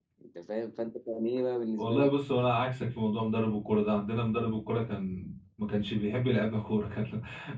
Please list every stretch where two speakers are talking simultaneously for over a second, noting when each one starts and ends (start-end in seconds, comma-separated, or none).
none